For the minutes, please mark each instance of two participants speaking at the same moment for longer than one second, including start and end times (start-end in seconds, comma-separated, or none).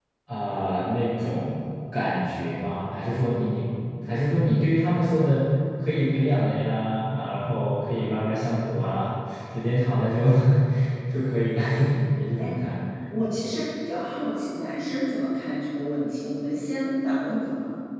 none